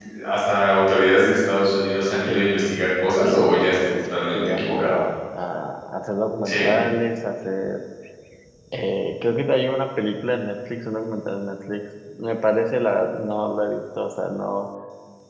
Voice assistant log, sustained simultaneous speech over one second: present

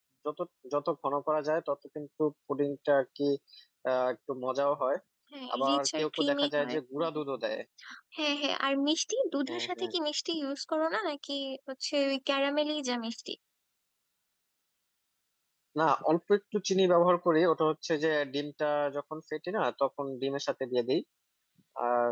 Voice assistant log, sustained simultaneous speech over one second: present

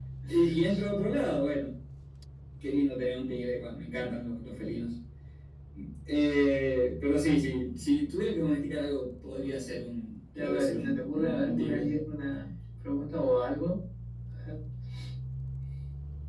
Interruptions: present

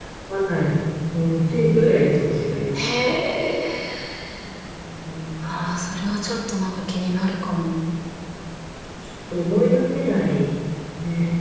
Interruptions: none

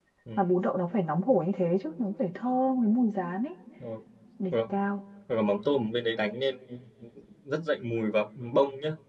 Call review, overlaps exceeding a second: none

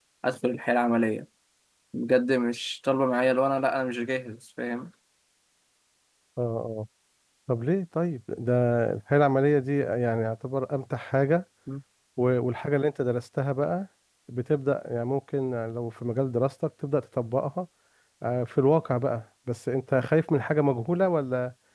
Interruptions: none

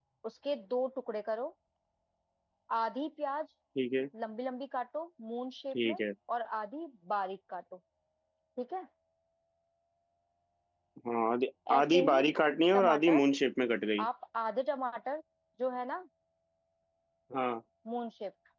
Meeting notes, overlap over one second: none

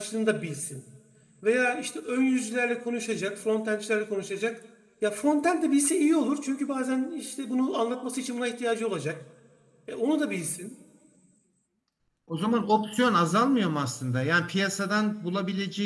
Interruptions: none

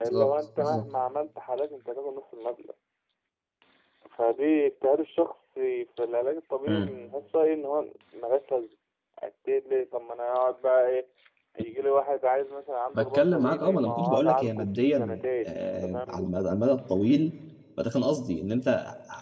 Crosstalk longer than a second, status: present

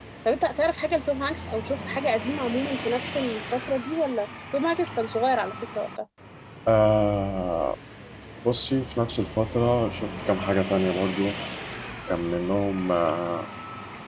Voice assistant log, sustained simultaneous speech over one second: none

